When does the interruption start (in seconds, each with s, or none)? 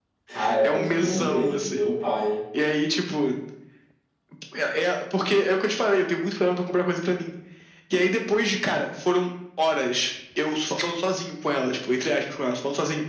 0.6 s